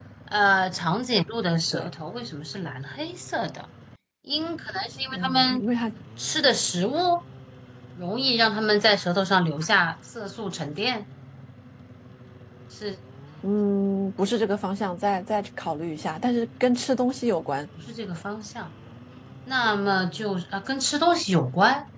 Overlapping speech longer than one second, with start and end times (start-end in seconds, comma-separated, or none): none